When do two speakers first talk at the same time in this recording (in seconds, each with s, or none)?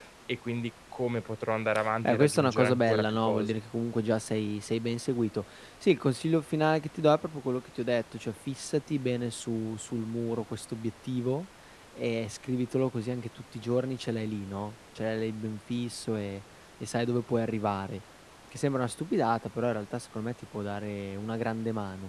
2.0 s